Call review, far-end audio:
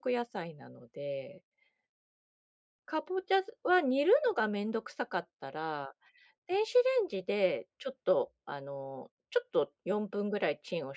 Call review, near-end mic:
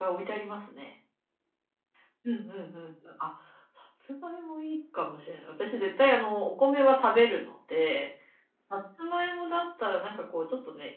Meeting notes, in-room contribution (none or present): present